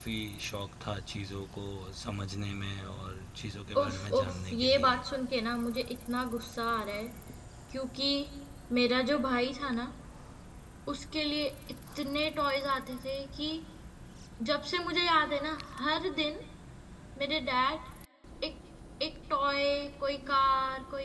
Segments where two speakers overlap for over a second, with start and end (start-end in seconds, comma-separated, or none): 3.8-5.0